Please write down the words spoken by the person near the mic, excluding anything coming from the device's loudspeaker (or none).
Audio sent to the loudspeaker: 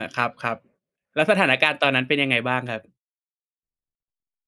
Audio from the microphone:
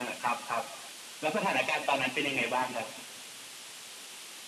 none